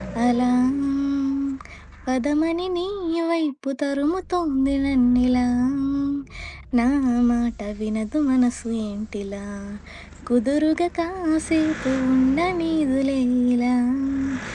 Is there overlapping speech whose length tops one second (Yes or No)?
No